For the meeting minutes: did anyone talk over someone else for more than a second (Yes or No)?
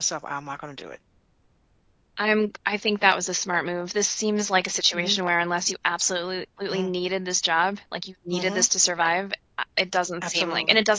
No